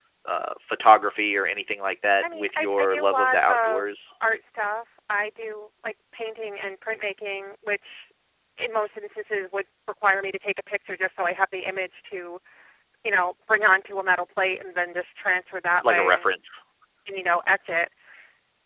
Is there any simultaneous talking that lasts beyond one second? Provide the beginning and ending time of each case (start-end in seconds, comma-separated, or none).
2.2-3.9